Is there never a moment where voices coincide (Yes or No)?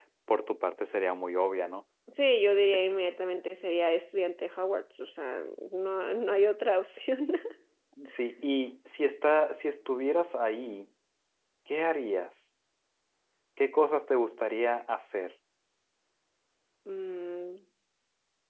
Yes